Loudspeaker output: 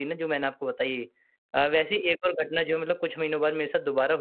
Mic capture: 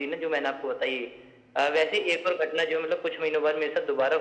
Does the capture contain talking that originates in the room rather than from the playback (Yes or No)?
No